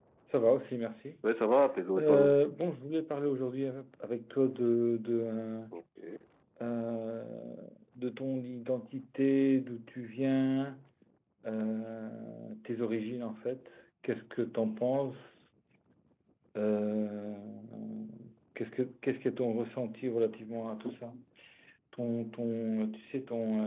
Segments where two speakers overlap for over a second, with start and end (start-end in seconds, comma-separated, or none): none